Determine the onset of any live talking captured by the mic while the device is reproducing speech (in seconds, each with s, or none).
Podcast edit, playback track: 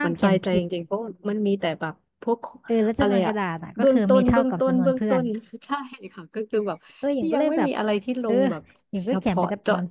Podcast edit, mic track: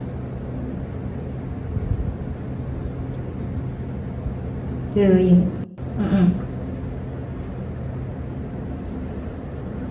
4.9 s